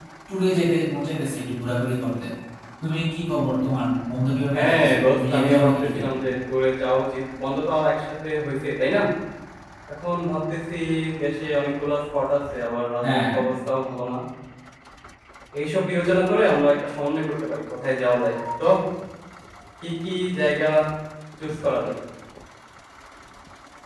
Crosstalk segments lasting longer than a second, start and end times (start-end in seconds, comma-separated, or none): 4.5-6.0